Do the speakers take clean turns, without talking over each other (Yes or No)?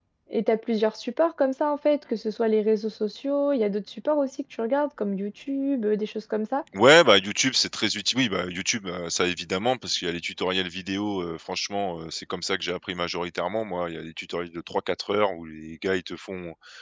Yes